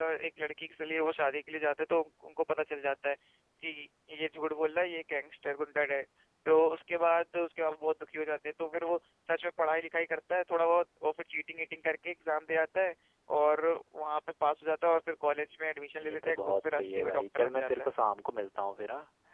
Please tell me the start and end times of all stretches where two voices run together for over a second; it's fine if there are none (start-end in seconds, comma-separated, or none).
15.9-17.9